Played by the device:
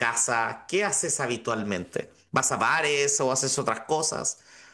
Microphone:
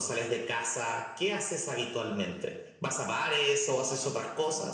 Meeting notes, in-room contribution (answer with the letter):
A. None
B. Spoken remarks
B